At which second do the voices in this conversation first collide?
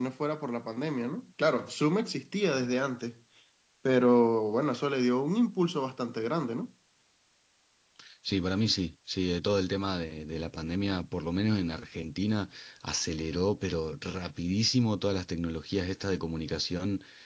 none

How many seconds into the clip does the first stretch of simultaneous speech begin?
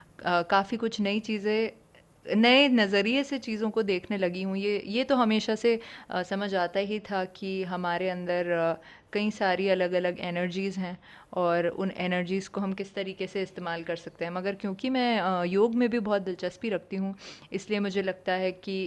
none

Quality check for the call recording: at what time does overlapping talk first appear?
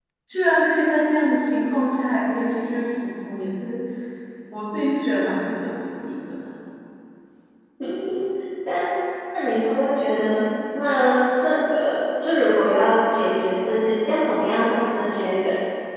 none

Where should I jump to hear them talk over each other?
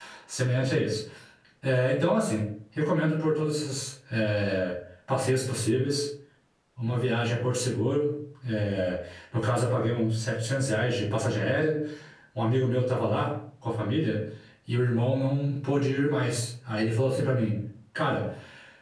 none

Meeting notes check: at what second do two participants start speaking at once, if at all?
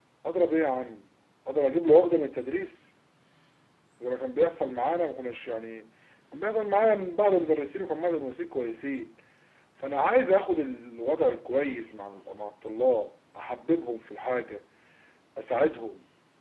none

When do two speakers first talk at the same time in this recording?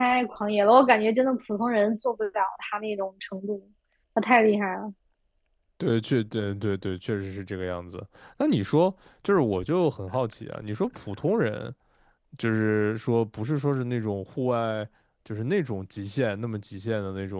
none

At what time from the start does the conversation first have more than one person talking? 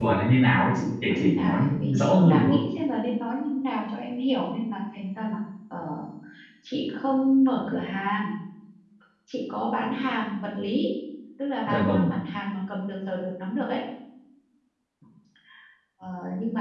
1 s

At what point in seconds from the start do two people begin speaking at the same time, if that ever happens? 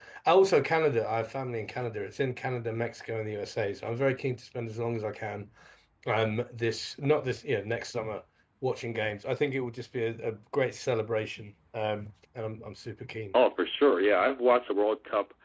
none

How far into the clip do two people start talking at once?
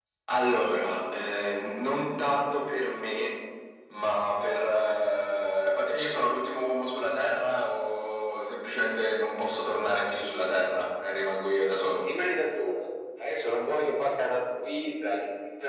none

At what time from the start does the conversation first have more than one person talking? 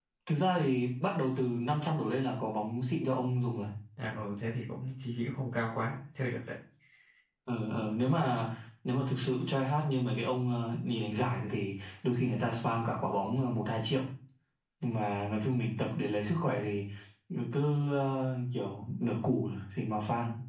none

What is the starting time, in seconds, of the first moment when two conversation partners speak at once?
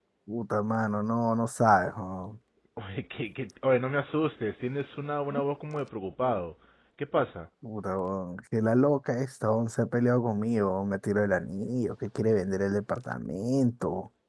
none

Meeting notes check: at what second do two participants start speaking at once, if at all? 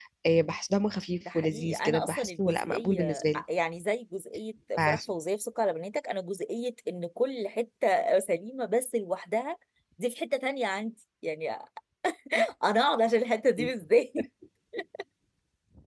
1 s

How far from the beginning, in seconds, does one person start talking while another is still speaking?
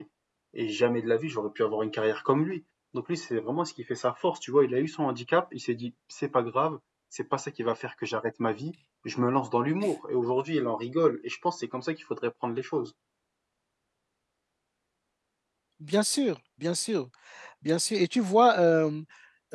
none

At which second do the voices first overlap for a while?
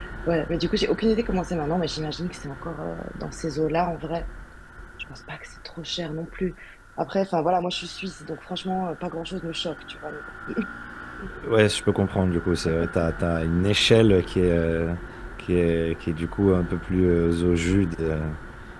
none

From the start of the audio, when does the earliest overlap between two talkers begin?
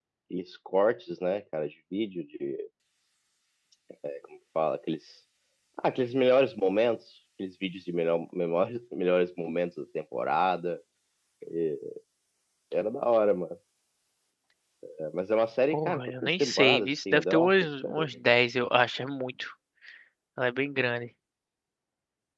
16 s

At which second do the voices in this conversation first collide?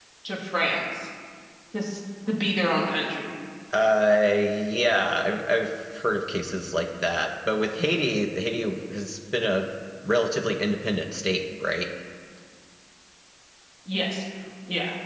none

